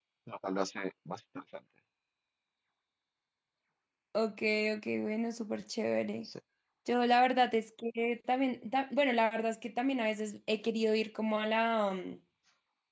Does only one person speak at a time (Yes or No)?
Yes